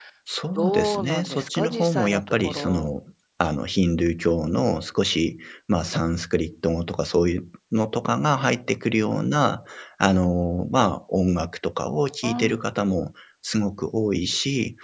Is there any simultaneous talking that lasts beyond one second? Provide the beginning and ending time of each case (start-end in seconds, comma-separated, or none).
0.6-2.9